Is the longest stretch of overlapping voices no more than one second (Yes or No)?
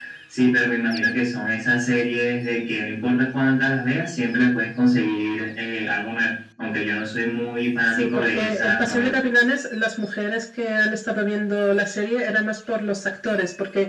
No